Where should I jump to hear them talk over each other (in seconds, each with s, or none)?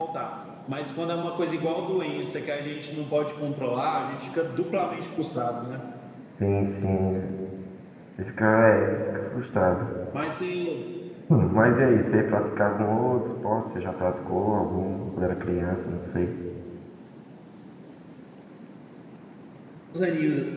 none